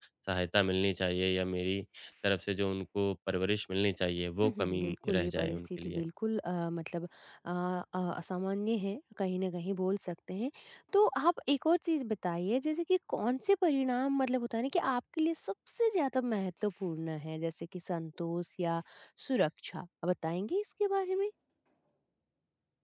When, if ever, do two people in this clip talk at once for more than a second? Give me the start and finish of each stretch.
4.4-6.0

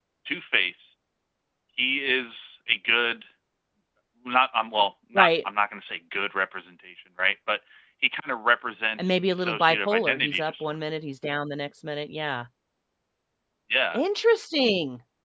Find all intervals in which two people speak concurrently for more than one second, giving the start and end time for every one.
9.0-10.7

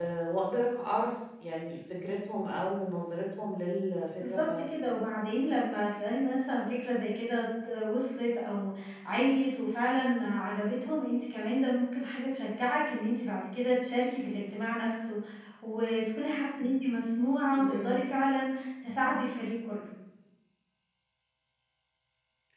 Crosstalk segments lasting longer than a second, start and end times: none

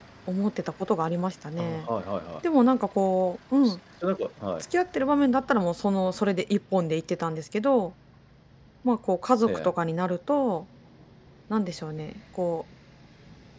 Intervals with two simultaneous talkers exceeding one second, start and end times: none

